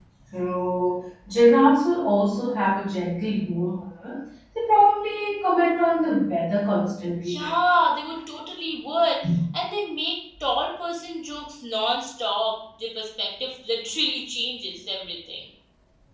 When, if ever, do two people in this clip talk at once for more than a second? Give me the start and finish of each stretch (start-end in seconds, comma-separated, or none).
none